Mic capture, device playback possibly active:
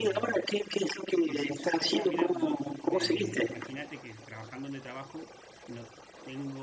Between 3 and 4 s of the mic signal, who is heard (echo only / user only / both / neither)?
both